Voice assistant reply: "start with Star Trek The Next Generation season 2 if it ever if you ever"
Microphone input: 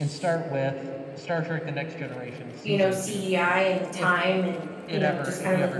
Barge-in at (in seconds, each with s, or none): 2.6 s